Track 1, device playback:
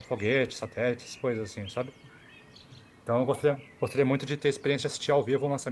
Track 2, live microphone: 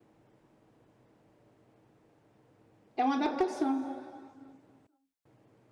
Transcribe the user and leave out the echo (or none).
É uma adaptação.